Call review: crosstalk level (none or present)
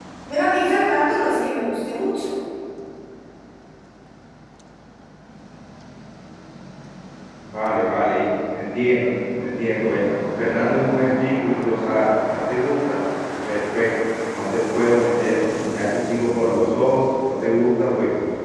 none